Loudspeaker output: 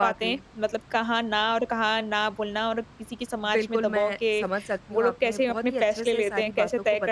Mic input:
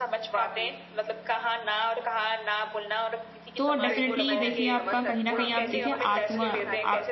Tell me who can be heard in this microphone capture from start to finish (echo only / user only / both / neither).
both